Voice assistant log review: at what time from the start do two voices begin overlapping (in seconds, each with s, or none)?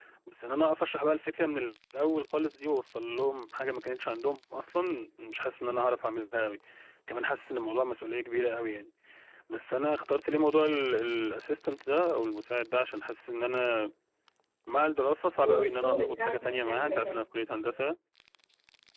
15.4 s